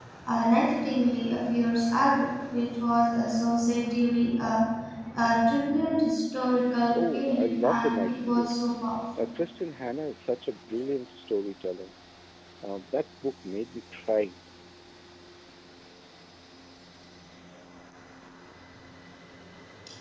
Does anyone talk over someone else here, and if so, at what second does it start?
7.0 s

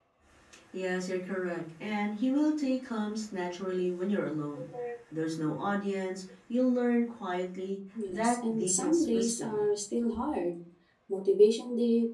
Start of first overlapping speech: 8.0 s

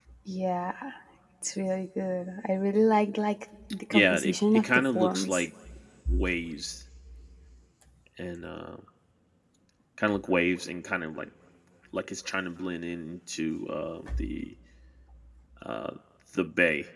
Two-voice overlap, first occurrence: 3.9 s

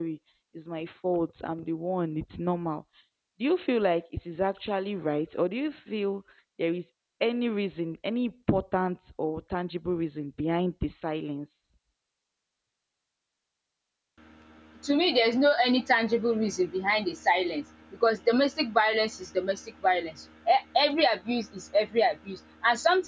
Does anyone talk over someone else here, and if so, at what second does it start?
none

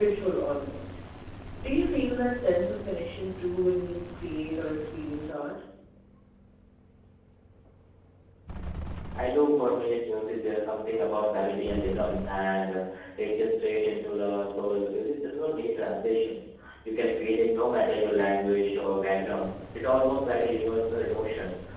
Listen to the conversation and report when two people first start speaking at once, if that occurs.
none

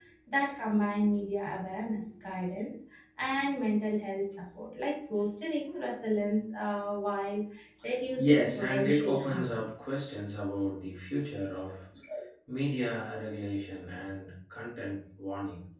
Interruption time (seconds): 8.2 s

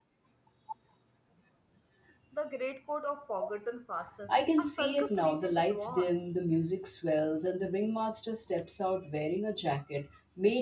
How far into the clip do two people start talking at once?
4.3 s

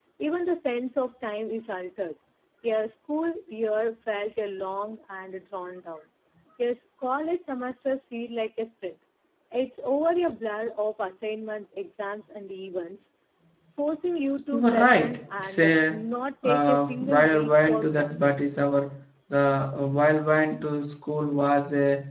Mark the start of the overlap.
14.5 s

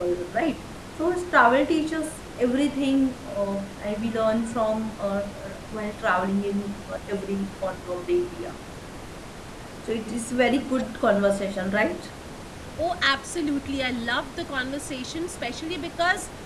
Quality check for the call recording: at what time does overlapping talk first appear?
none

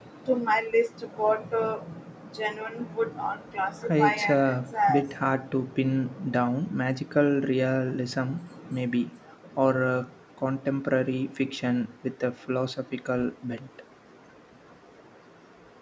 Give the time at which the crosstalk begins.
3.8 s

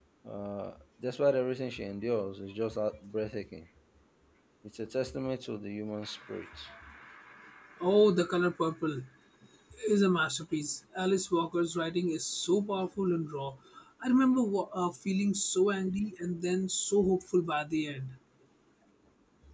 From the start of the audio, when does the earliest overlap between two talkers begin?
none

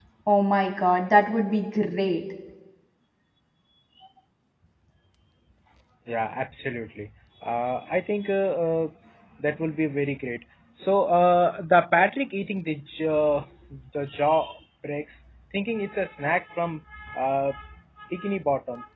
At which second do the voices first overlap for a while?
none

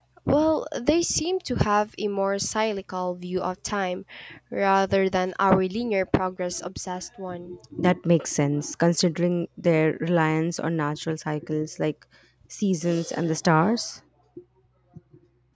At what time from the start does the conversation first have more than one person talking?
none

